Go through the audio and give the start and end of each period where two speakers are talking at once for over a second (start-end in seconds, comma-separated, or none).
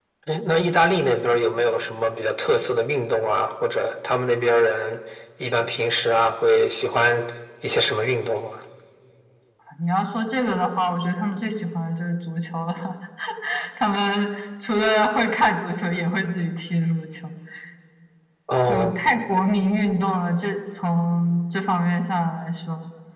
none